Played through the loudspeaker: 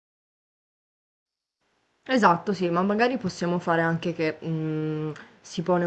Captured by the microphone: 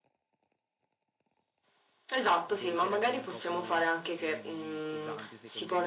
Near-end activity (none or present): present